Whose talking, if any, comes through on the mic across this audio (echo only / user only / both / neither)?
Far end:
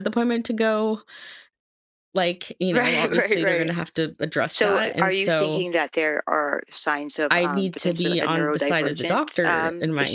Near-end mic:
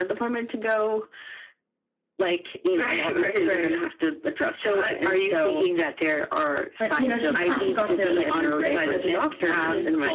both